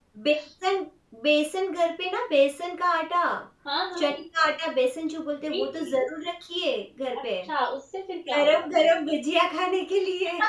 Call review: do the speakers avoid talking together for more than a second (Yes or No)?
Yes